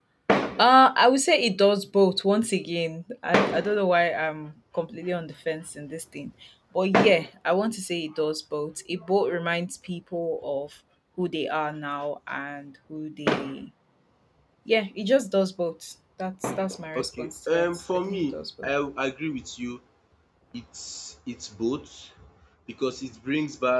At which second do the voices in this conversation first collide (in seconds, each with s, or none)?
16.9 s